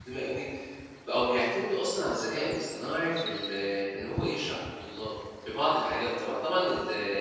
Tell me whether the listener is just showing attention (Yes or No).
No